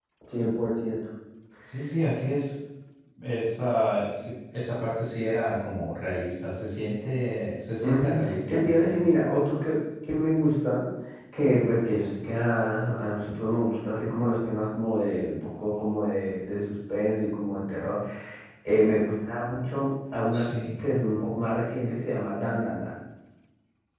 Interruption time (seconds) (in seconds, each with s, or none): 7.8 s